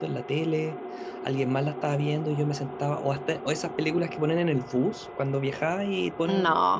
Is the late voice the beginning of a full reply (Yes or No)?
No